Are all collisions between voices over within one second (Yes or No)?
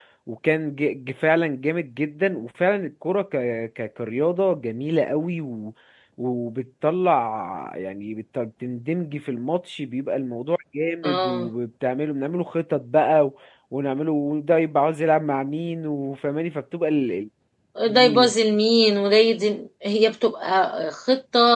Yes